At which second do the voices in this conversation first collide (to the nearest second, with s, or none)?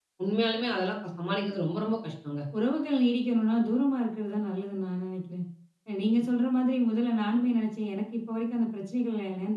none